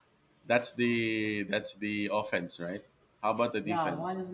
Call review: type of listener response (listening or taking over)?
taking over